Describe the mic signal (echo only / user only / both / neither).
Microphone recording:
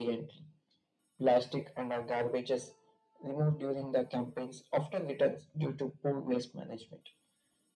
echo only